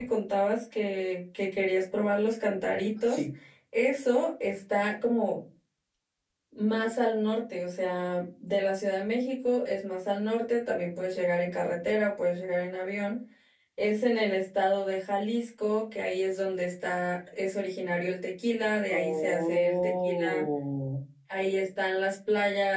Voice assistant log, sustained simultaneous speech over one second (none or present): present